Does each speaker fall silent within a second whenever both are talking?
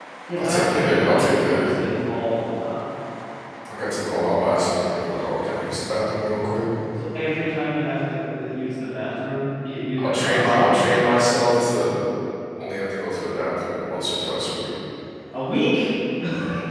No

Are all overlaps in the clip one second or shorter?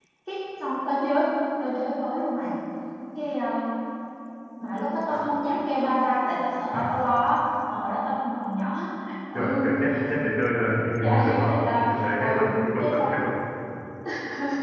No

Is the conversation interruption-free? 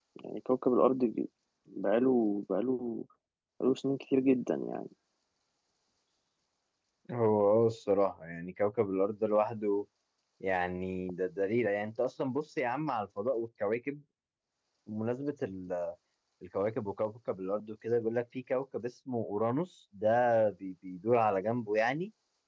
Yes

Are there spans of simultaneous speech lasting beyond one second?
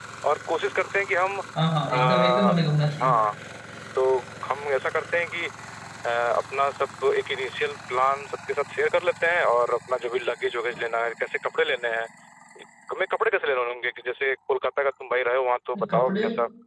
Yes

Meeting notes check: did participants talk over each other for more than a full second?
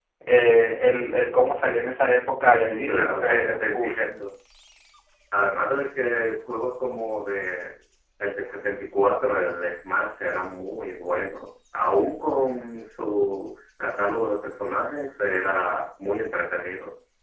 Yes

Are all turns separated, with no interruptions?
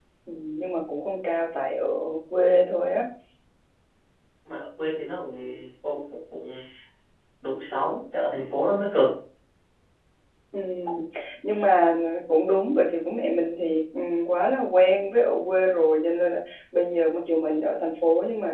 Yes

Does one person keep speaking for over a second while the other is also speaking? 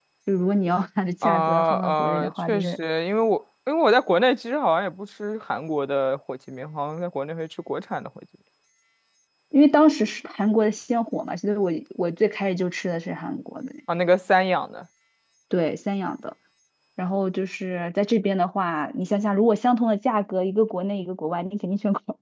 Yes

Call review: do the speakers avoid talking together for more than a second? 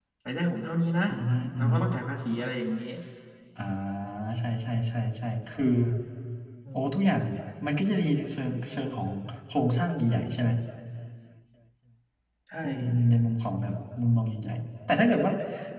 Yes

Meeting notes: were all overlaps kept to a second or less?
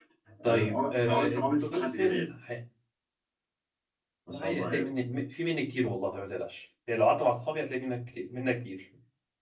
No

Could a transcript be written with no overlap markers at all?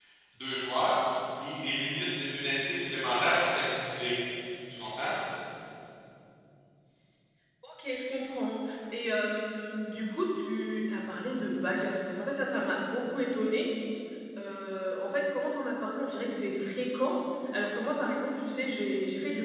Yes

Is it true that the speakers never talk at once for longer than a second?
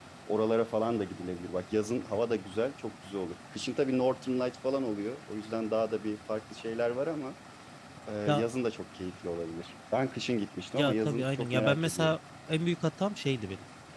No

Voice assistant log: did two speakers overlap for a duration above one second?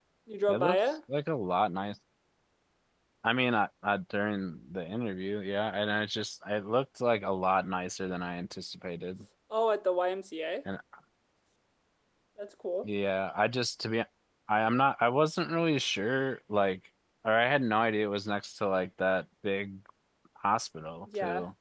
No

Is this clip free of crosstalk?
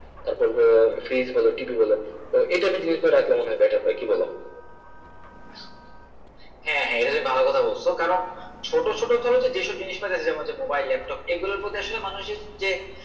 Yes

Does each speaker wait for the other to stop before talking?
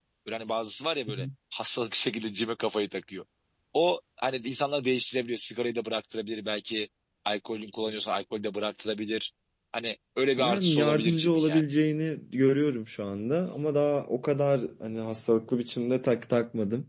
No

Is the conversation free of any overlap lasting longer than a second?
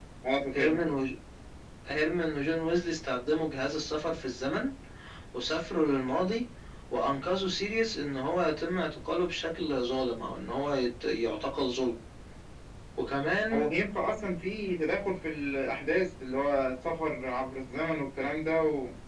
Yes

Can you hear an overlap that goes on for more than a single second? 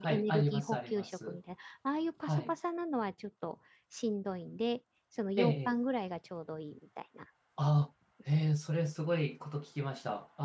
Yes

